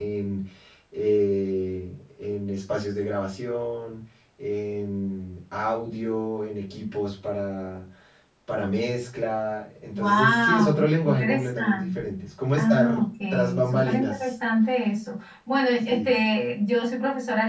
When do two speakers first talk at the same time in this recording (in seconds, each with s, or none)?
9.9 s